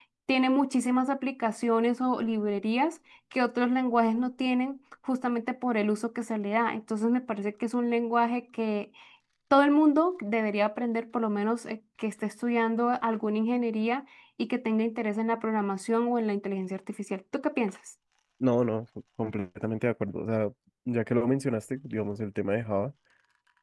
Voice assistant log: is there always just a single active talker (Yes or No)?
Yes